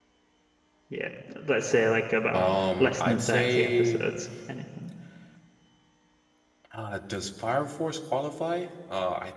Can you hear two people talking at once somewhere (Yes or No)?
Yes